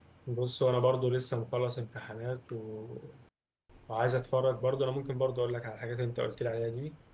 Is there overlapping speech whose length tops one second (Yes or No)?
No